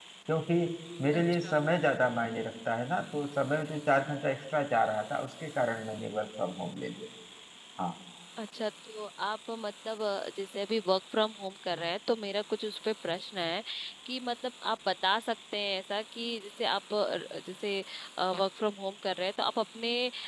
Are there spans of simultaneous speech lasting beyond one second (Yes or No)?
No